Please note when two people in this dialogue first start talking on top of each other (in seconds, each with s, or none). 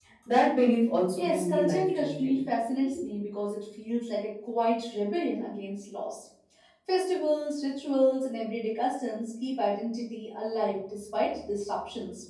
1.1 s